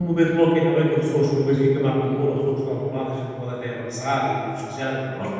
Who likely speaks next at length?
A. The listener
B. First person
B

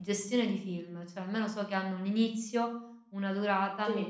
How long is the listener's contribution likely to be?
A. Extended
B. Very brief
B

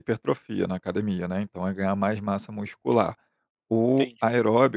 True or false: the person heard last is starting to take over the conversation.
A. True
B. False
B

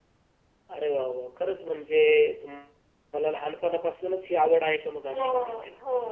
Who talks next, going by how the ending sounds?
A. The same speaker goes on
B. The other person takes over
B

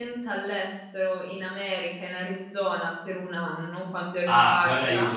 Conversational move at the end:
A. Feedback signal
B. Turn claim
B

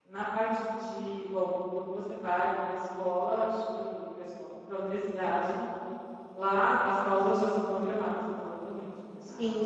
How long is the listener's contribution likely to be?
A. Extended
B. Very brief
A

